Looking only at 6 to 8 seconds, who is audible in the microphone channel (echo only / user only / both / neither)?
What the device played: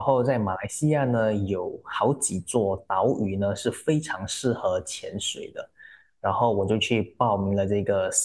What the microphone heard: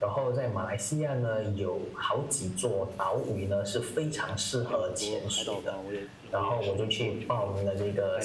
both